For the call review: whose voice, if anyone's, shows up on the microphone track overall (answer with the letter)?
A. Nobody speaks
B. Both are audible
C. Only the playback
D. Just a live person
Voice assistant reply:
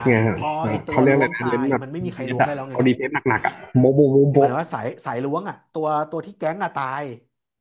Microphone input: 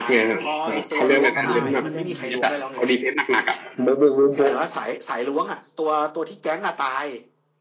B